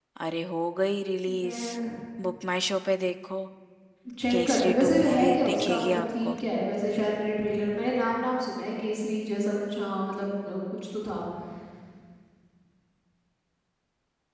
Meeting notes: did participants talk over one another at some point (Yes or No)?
Yes